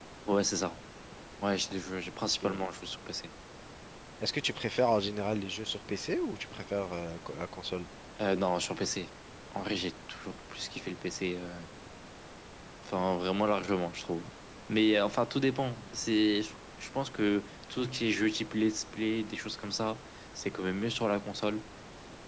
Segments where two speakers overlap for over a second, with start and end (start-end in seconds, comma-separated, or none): none